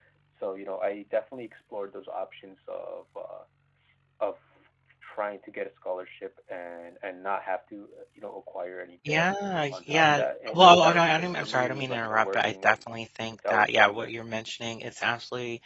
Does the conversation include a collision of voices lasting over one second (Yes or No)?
Yes